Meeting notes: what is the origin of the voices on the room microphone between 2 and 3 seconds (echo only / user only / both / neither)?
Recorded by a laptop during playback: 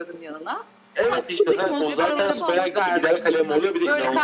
both